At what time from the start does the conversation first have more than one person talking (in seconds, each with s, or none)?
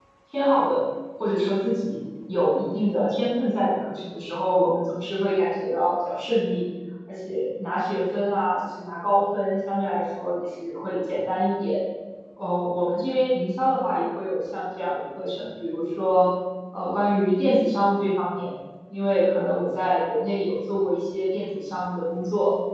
none